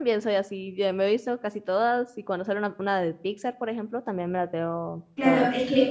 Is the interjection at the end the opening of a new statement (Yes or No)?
Yes